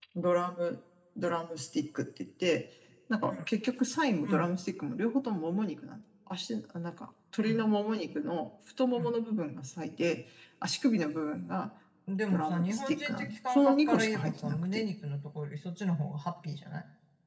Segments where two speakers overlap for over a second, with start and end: 12.3-14.8

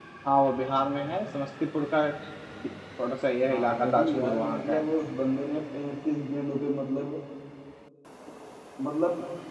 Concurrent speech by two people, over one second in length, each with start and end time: 3.5-4.8

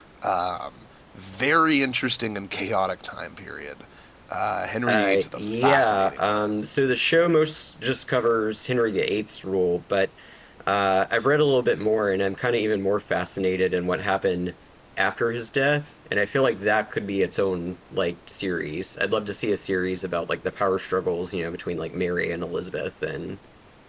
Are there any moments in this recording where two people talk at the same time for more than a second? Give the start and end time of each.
4.9-6.5

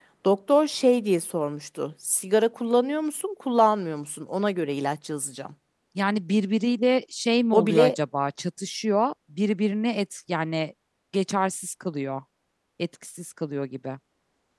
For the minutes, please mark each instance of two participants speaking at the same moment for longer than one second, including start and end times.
none

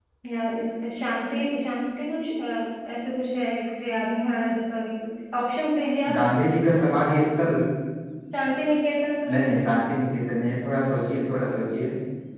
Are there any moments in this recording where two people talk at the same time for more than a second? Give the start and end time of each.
none

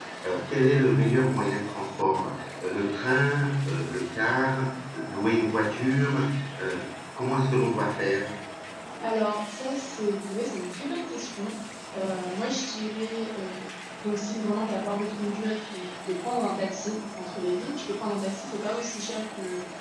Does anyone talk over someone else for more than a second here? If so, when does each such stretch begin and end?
none

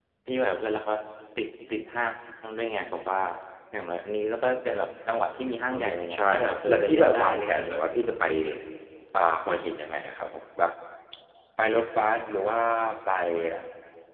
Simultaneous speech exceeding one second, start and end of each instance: 5.7-7.7

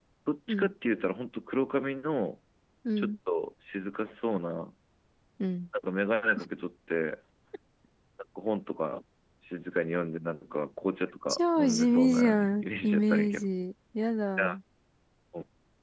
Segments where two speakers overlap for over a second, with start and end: 11.3-13.5

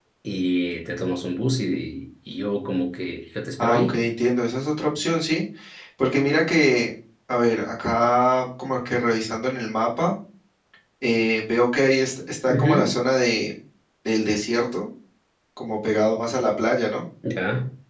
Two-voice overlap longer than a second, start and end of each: none

